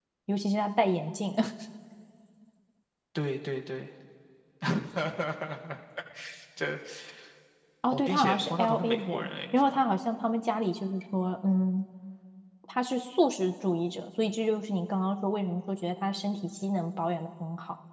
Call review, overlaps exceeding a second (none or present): present